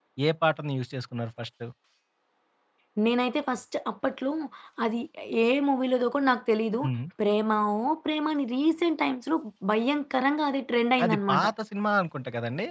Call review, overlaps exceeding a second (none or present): none